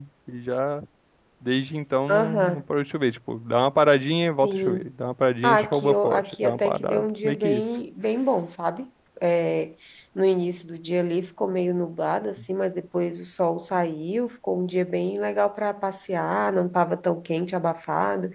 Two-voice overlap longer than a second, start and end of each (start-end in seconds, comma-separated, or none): 5.4-7.6